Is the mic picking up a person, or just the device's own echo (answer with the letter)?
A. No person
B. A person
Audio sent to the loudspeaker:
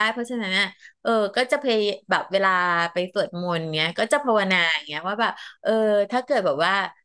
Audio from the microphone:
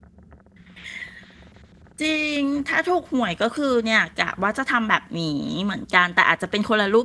B